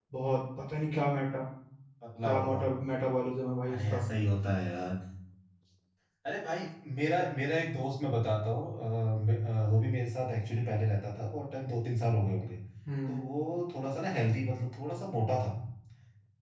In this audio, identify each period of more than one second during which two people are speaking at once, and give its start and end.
none

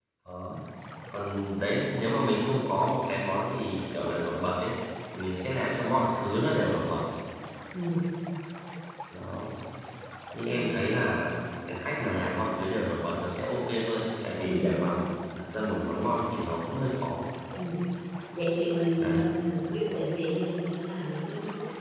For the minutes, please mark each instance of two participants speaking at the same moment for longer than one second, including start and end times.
none

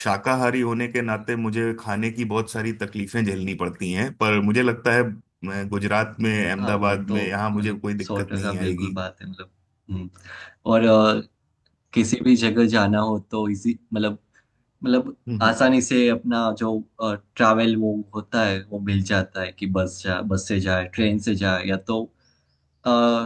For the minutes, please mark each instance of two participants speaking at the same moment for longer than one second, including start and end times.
6.6-8.9

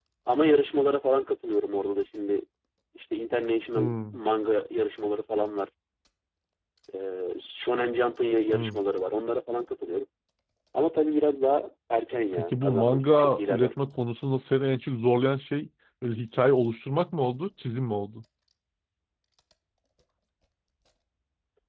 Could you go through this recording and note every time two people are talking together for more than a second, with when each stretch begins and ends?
12.3-13.7

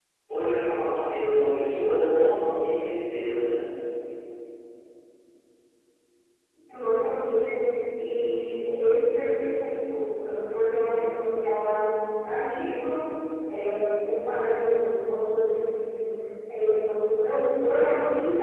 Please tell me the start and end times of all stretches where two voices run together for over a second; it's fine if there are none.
none

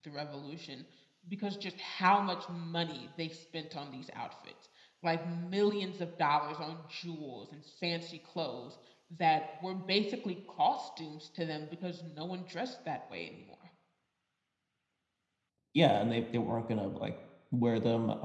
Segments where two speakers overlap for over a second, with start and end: none

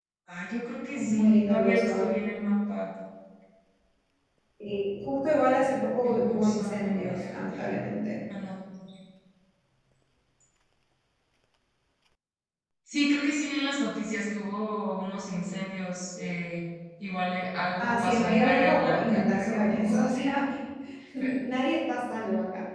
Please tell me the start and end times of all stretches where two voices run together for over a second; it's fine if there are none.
0.9-2.2, 6.0-7.4, 17.8-20.1

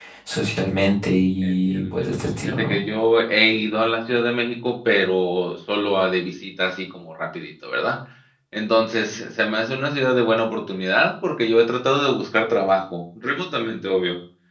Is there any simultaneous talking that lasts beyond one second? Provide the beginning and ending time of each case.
1.4-2.8

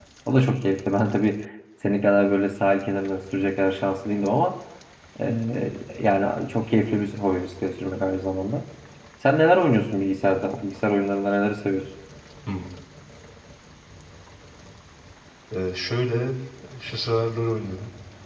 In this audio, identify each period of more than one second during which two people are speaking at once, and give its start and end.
none

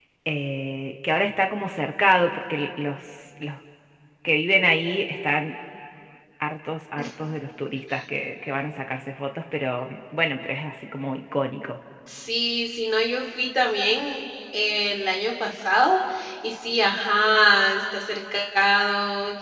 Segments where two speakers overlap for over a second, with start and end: none

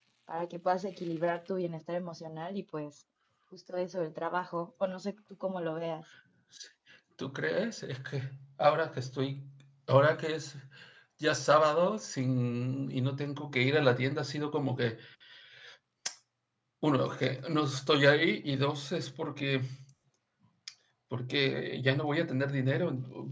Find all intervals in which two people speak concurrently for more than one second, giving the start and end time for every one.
none

